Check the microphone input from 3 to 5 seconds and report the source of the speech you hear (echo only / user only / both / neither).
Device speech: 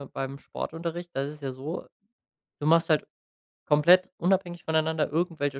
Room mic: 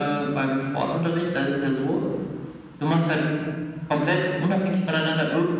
echo only